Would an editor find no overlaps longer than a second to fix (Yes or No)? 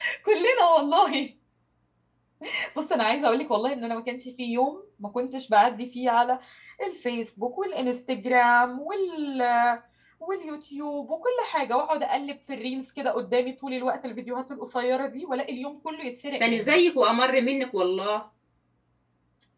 Yes